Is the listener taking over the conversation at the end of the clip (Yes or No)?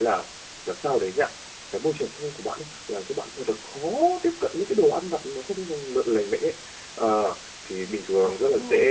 No